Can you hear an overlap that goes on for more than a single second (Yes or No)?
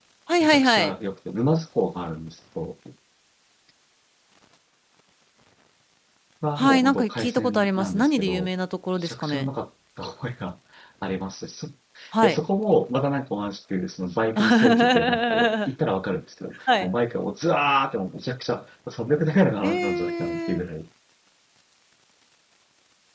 Yes